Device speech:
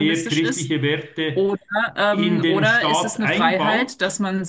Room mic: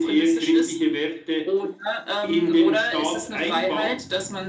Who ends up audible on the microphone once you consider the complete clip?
echo only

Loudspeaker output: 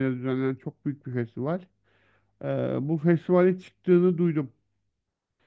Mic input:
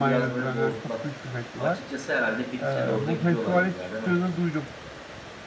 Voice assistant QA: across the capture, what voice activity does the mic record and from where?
both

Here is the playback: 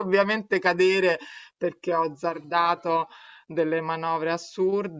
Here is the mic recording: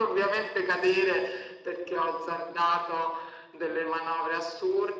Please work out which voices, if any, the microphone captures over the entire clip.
echo only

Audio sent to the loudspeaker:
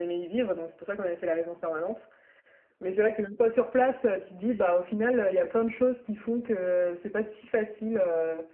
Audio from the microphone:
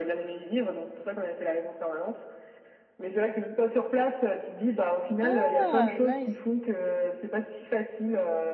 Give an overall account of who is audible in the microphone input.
both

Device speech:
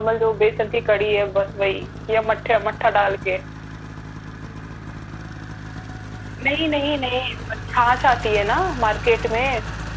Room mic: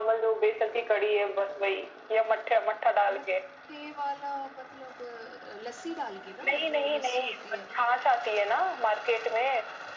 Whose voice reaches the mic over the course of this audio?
both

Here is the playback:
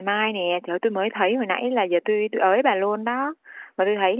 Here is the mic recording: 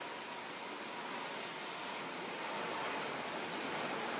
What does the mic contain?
neither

